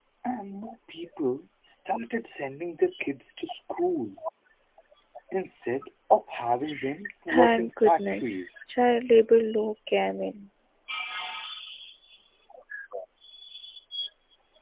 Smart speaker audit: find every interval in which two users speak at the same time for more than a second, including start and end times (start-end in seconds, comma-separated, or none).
7.3-8.5